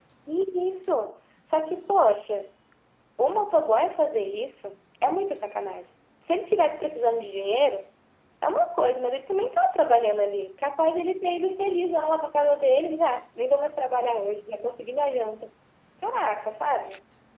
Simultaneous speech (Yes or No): No